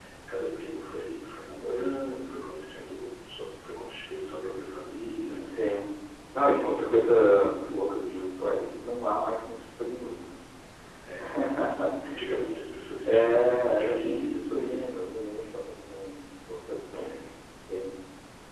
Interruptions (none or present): present